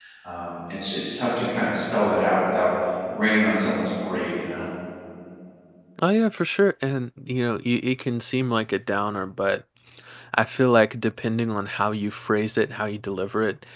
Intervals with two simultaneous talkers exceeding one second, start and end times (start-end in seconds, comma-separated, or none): none